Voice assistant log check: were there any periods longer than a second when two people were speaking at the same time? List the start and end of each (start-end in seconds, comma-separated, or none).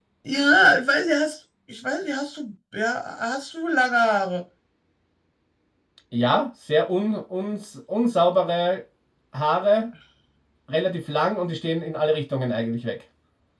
none